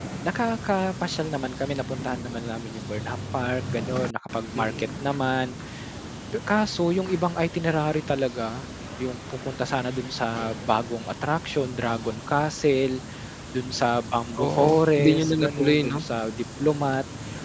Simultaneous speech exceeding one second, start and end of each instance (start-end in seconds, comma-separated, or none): 14.4-16.0